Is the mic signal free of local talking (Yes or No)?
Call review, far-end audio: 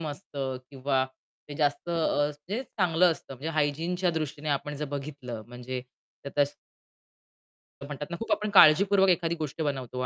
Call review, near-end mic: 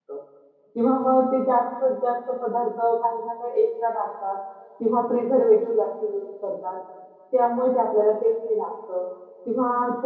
No